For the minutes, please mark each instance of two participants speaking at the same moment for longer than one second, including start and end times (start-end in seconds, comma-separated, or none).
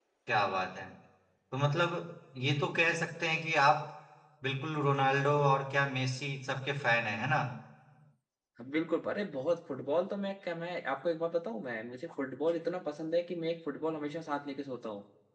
none